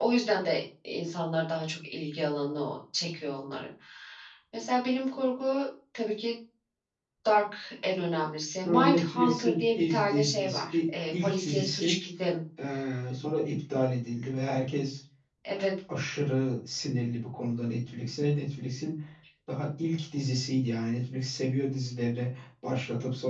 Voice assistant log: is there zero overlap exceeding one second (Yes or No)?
No